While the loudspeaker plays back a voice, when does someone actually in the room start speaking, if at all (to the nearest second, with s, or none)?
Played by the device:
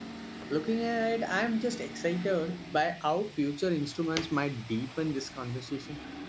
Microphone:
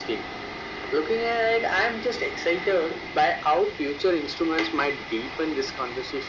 none